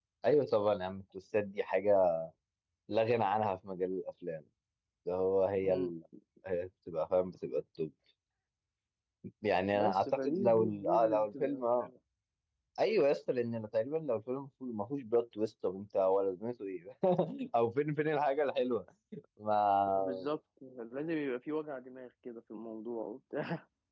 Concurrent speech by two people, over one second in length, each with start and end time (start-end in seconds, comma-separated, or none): 9.8-11.9